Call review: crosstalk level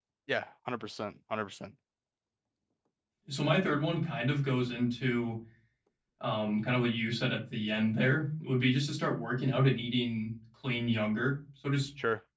none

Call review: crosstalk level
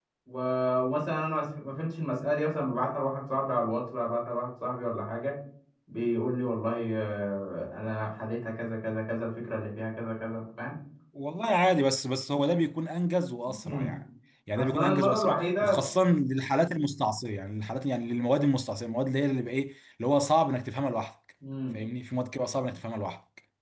present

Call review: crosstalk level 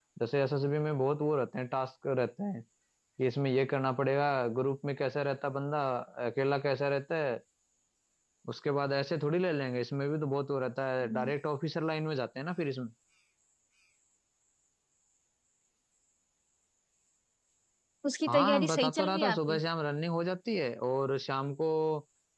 present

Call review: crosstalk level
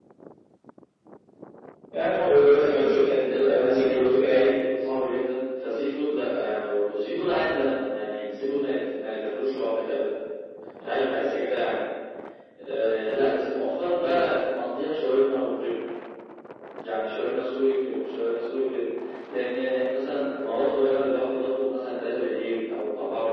present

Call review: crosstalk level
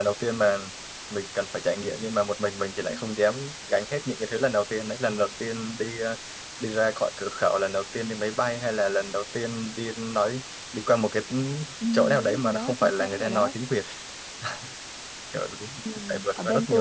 present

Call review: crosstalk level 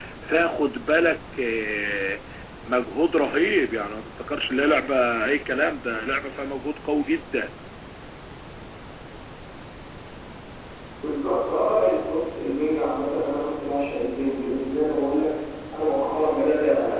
none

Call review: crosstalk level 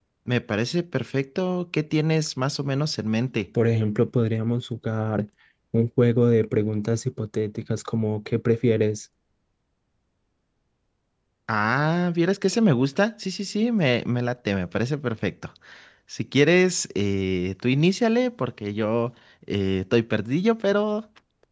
none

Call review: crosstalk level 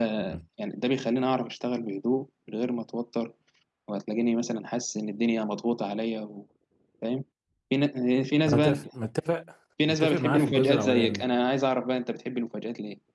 present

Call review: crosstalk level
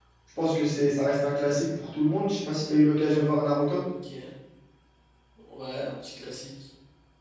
none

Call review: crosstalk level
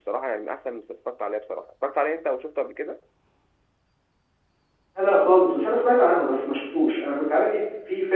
none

